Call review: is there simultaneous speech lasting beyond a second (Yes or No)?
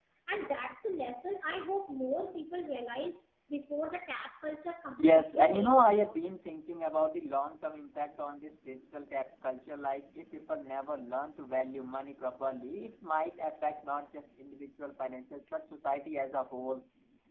Yes